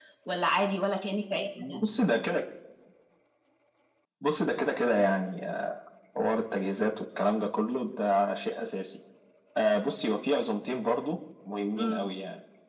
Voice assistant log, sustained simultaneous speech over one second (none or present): none